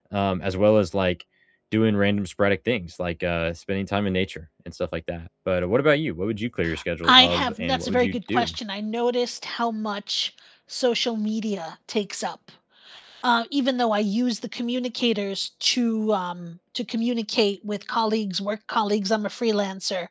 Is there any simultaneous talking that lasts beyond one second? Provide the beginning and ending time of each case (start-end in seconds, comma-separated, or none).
7.0-8.6